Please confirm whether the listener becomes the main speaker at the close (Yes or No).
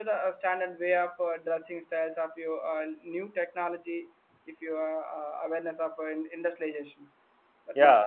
Yes